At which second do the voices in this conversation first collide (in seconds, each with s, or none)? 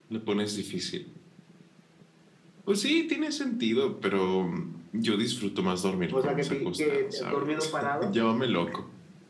6.1 s